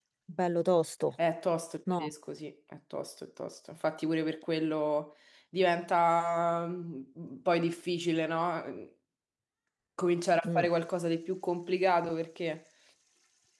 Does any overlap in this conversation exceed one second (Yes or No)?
No